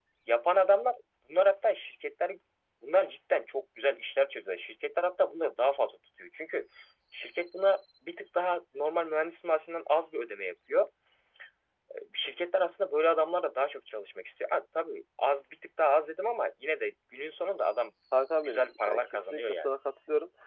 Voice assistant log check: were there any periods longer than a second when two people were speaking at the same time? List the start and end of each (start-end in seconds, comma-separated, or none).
18.4-19.7